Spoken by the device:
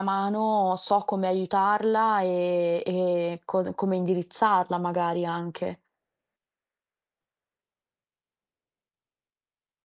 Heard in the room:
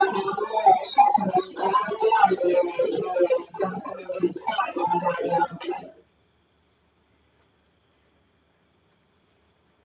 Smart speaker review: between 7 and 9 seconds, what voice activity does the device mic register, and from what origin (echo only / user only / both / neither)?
neither